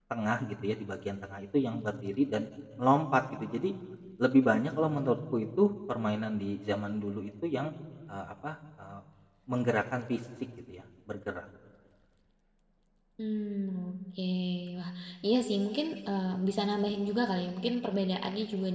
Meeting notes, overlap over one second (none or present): none